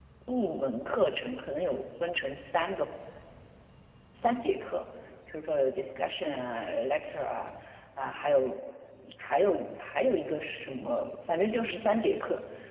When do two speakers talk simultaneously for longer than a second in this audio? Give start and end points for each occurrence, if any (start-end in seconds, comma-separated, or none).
none